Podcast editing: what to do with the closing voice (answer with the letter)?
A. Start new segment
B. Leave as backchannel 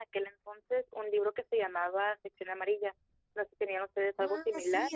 A